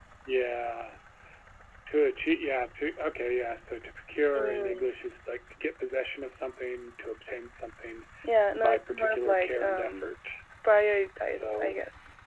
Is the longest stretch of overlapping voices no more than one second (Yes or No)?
No